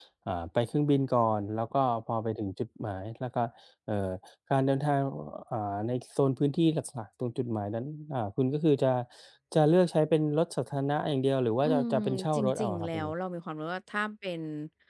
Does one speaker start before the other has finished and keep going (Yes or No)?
Yes